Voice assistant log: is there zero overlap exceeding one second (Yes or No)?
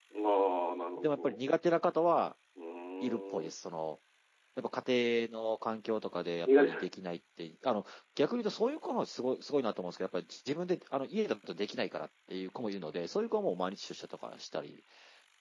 Yes